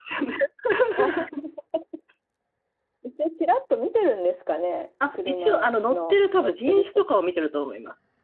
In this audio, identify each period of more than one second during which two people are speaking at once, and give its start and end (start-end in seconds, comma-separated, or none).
5.1-7.0